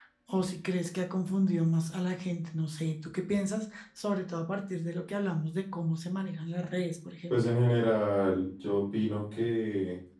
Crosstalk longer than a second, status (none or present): none